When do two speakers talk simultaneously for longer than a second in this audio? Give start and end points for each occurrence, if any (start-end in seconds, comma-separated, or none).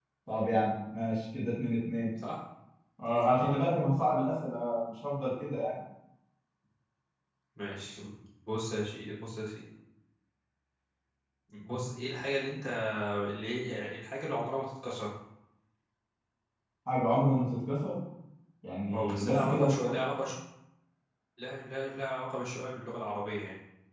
18.9-20.2